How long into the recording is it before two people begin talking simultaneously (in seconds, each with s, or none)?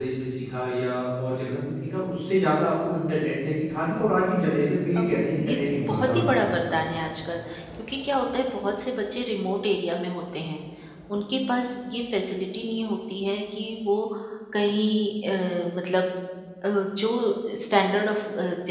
5.0 s